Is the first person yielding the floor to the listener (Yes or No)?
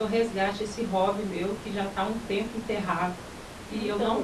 No